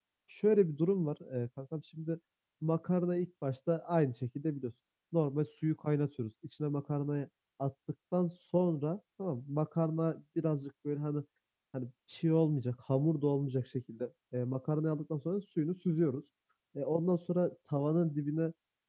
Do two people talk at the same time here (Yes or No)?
No